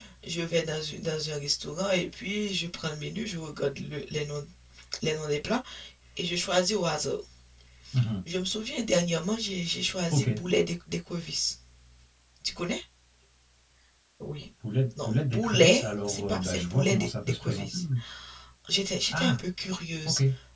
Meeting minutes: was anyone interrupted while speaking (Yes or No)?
Yes